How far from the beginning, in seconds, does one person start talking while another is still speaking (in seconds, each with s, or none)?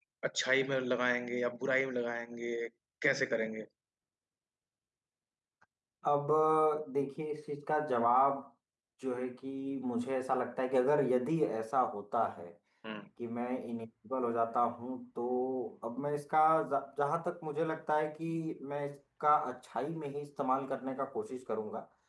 none